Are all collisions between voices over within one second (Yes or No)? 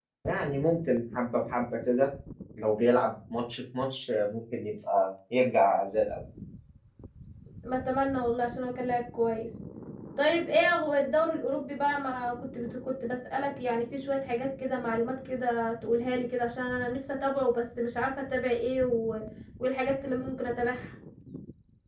Yes